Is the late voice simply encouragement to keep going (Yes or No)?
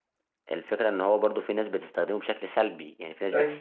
Yes